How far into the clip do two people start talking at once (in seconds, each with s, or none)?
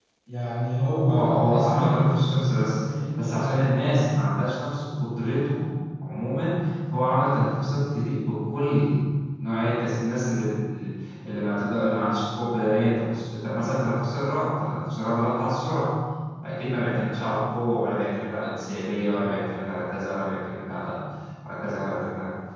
1.1 s